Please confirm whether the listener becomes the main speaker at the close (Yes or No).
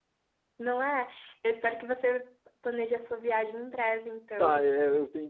Yes